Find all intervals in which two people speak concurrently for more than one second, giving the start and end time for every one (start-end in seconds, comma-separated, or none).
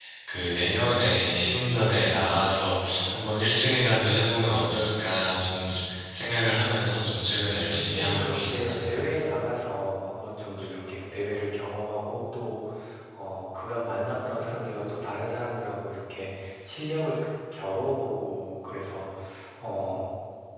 7.7-9.0